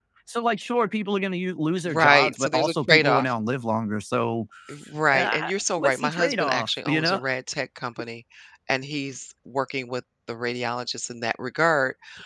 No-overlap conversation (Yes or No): No